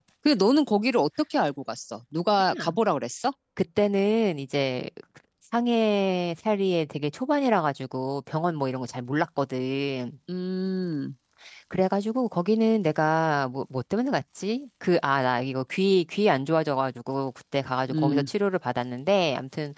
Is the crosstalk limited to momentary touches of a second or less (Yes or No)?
Yes